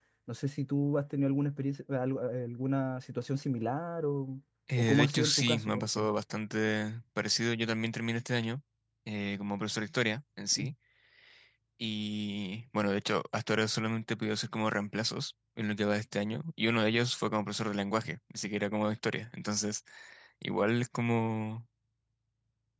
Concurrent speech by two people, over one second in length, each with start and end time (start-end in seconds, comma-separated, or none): 4.8-6.1